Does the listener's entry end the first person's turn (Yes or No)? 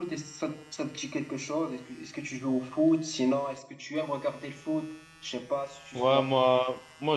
Yes